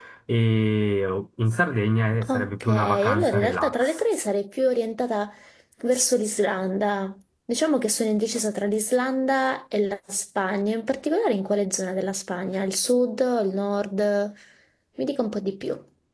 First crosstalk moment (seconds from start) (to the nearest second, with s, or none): 2 s